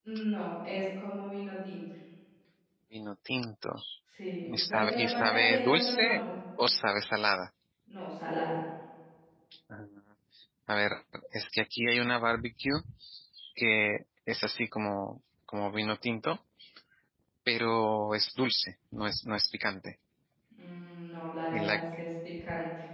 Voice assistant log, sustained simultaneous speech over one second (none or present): present